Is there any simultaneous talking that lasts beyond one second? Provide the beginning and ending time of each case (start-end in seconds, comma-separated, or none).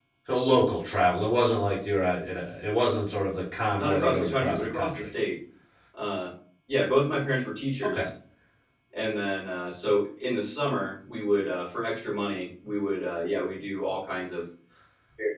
3.8-5.1